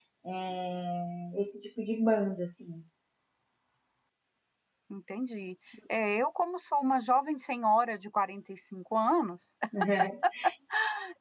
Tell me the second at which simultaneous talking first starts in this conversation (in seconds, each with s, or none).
none